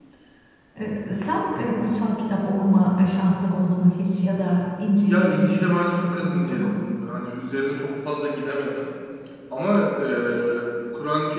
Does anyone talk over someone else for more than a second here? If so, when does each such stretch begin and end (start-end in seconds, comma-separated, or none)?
5.0-6.7